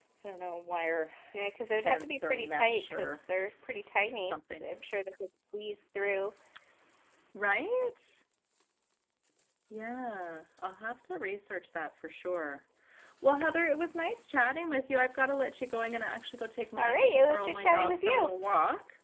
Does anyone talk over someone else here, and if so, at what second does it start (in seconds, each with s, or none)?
1.9 s